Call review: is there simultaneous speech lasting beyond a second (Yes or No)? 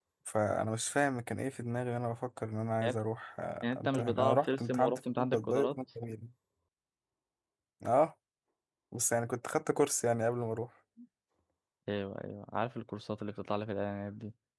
Yes